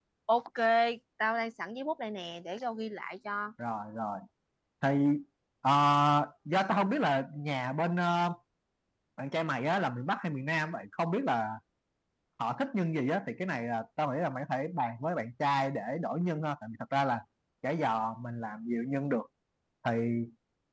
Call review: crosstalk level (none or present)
none